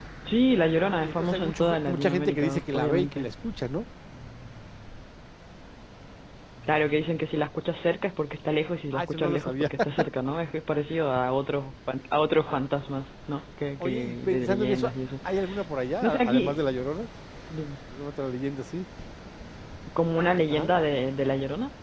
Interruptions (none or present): present